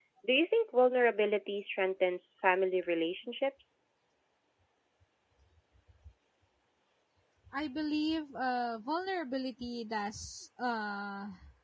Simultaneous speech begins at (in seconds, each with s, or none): none